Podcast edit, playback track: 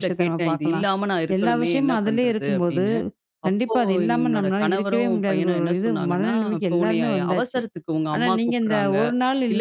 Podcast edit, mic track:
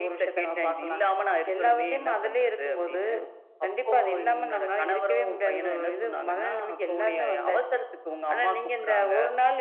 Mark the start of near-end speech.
none

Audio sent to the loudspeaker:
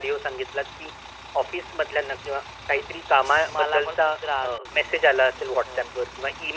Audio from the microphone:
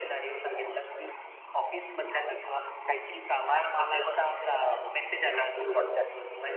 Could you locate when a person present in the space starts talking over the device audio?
none

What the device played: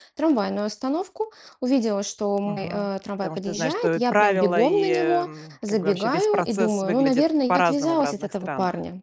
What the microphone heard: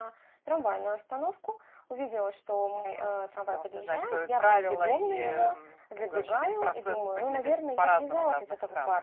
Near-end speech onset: none

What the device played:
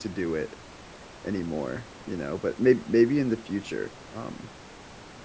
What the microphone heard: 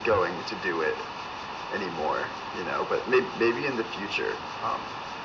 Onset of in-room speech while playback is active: none

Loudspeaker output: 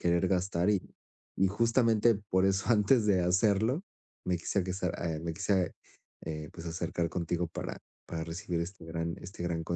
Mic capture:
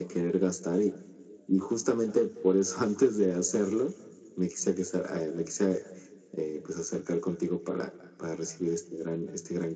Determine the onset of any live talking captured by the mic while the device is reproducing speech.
none

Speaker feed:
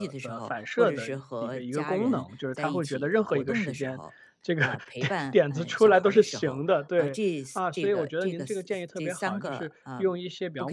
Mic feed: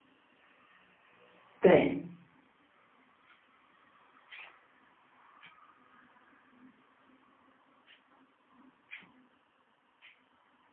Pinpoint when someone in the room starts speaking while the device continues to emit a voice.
1.6 s

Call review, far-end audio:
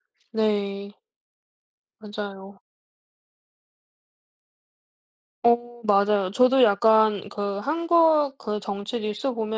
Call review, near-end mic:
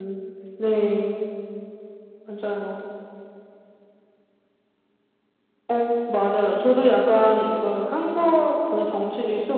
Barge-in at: none

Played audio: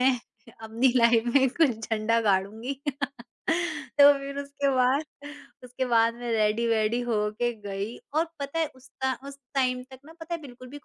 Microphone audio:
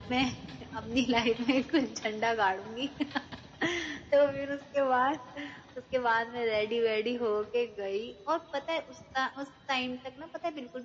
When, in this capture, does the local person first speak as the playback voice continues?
none

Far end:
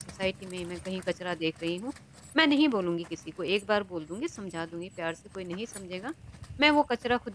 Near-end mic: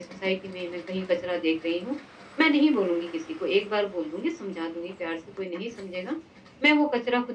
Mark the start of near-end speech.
none

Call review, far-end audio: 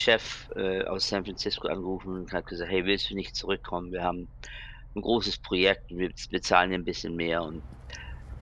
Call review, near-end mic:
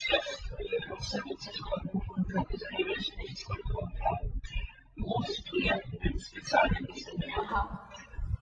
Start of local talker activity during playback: 7.4 s

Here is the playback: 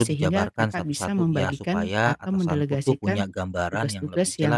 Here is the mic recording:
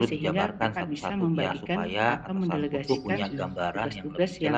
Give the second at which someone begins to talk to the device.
2.9 s

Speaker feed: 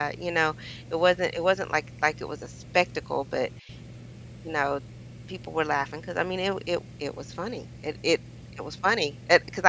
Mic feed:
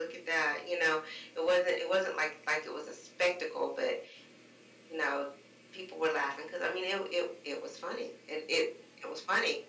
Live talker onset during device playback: none

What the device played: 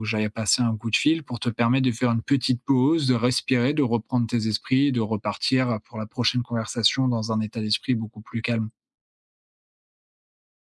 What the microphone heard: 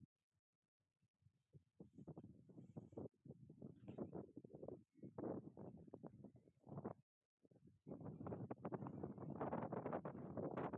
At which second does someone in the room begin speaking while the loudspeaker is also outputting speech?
none

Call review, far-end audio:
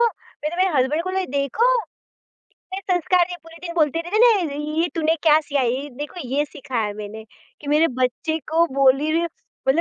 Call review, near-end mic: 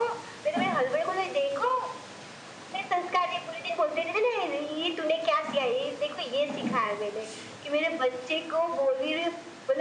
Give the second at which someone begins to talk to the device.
none

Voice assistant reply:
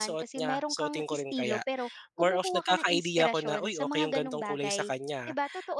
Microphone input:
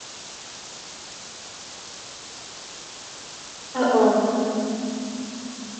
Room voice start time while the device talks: 3.8 s

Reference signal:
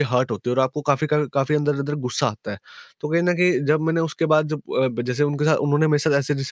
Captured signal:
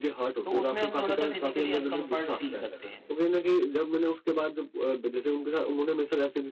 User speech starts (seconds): 0.4 s

